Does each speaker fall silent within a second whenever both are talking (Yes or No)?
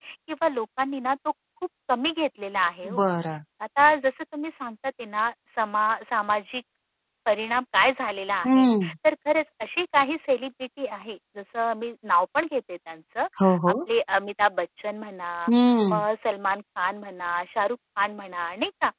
Yes